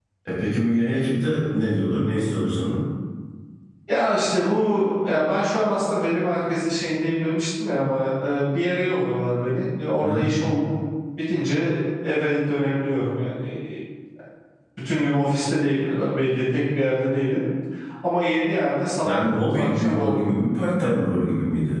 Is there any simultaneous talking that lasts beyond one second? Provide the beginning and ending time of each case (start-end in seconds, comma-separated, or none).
19.0-20.3